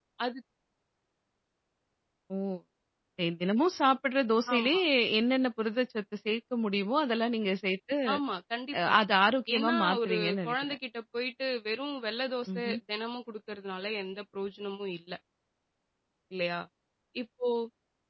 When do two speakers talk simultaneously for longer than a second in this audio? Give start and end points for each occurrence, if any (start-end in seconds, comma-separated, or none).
9.6-10.8